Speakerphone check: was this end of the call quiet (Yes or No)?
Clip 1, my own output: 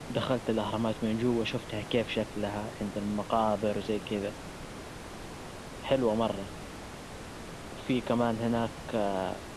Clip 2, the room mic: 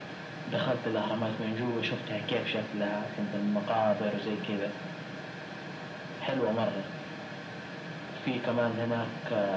Yes